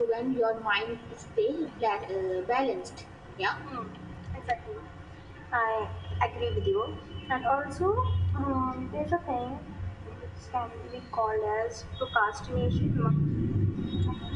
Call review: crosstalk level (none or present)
none